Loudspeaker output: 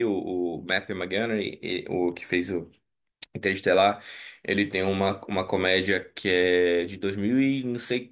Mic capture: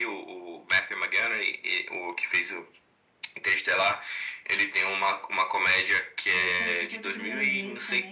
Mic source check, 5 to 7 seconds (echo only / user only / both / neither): both